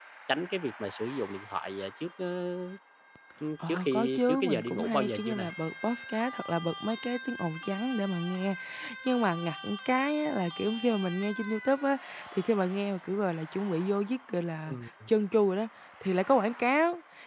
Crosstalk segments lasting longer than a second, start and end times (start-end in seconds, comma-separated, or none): 3.7-5.4